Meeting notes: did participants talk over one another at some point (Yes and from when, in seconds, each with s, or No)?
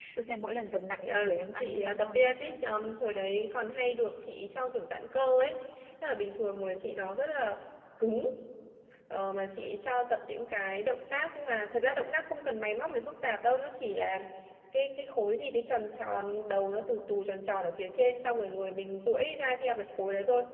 Yes, from 1.1 s